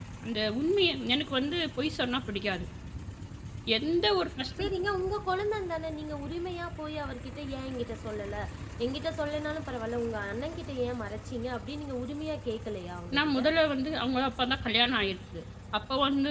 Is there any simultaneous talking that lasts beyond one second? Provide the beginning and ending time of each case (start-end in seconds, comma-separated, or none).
none